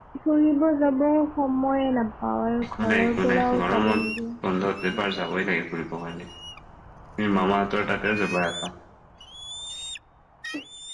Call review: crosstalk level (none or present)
present